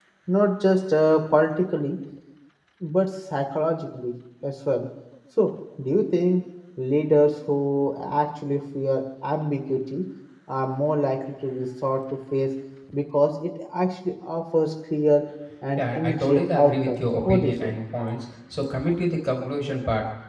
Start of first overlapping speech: 15.8 s

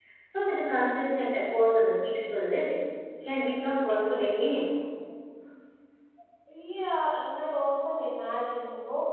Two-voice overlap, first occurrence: none

